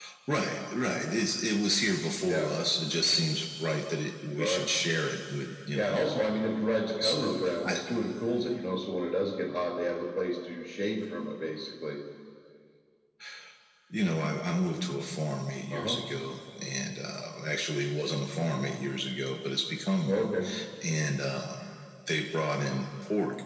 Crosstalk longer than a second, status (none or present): none